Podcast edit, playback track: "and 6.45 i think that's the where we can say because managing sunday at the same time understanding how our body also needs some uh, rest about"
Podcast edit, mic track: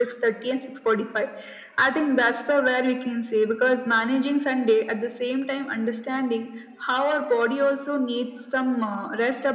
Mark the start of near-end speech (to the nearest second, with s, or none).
none